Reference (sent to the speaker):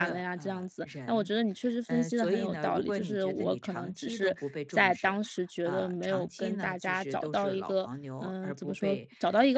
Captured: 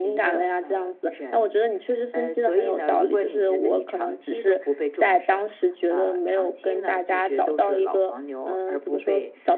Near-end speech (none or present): none